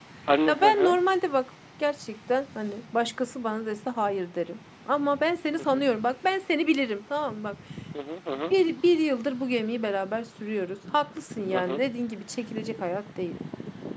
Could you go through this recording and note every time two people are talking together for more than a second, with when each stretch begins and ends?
none

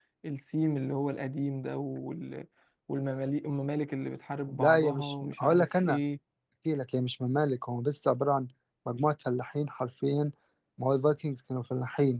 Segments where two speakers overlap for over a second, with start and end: 4.5-6.0

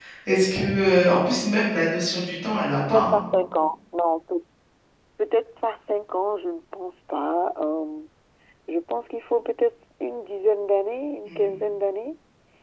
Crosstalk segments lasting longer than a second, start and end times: none

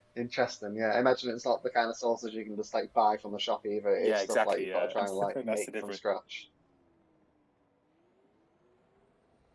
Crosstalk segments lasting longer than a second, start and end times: 4.0-6.0

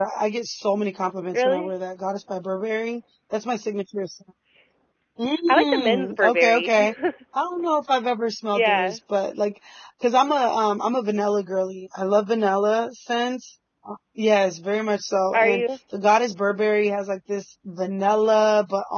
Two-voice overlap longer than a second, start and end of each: 5.5-6.9

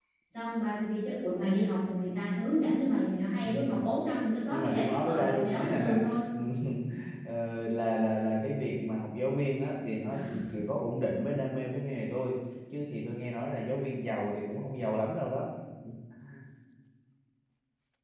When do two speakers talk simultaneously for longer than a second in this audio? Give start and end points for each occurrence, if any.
4.5-6.0

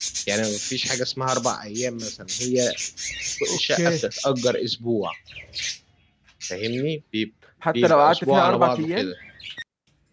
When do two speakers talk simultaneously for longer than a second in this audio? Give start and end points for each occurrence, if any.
7.7-9.1

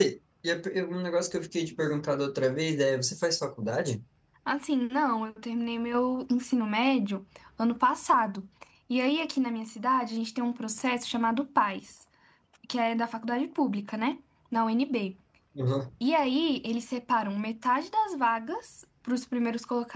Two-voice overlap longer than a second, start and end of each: none

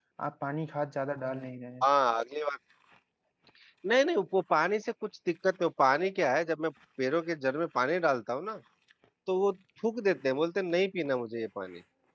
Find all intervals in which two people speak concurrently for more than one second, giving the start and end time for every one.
none

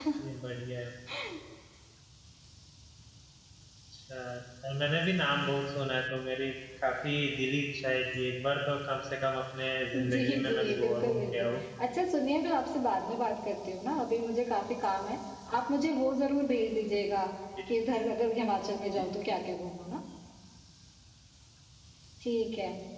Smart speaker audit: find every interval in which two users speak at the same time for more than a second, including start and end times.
10.1-11.5

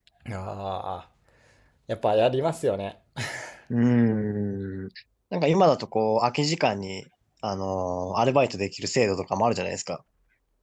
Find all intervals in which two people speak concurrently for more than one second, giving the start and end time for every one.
none

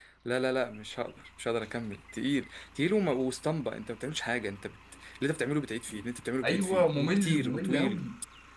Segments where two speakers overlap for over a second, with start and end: 6.4-8.1

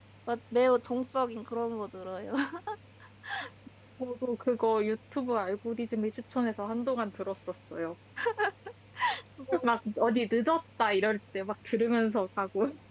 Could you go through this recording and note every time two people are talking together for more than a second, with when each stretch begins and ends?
none

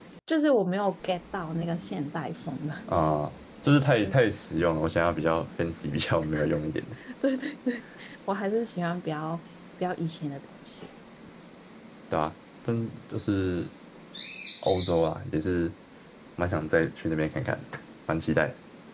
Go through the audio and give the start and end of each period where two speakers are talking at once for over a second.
none

